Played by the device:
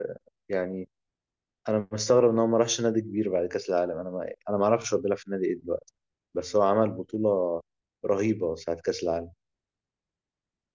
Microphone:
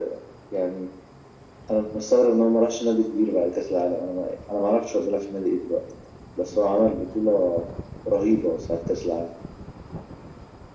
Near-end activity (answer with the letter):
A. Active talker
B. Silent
B